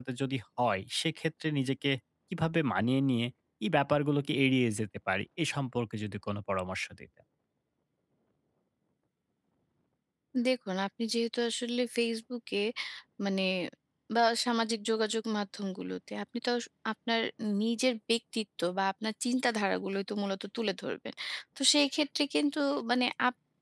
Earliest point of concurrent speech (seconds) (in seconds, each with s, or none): none